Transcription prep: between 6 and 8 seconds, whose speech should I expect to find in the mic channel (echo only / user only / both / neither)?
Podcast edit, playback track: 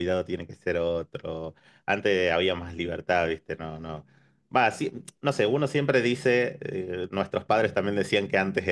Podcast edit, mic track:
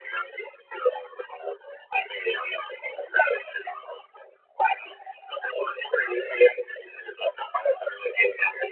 echo only